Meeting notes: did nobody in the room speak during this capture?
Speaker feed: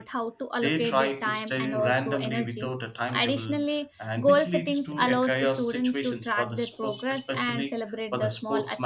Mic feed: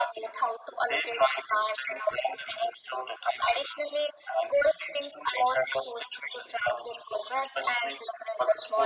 Yes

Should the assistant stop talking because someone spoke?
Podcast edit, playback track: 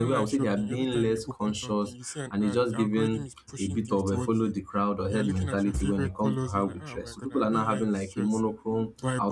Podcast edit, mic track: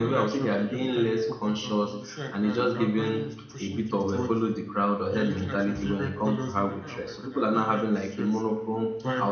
No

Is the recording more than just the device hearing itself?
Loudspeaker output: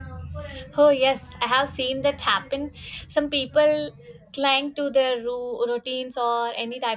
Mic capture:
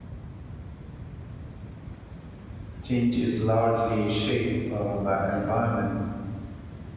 Yes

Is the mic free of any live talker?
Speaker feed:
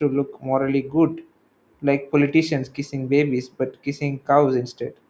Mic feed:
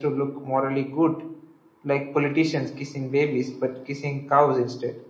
Yes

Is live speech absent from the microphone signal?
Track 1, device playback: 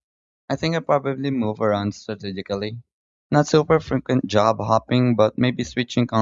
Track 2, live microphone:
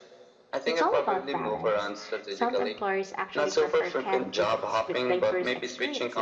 No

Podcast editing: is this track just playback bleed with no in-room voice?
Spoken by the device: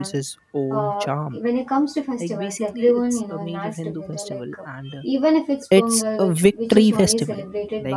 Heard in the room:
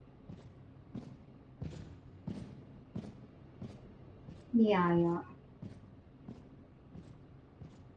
No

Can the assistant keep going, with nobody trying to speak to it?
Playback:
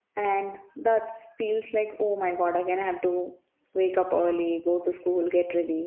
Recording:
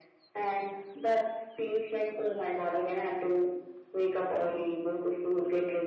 Yes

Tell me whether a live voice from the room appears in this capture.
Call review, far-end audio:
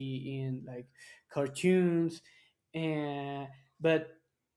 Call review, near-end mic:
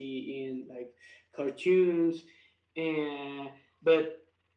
No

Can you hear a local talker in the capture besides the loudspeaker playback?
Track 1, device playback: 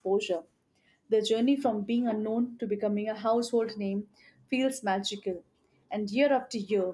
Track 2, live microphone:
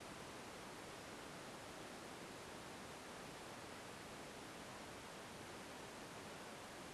No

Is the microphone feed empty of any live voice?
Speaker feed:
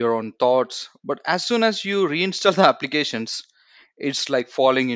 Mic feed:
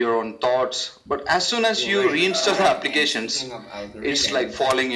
No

